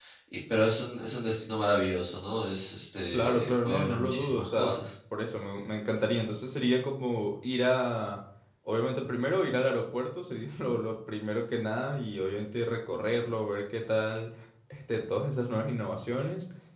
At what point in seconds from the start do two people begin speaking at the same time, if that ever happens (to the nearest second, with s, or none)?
3 s